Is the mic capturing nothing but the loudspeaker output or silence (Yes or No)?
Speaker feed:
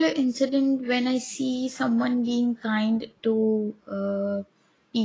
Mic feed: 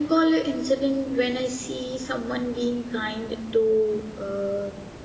Yes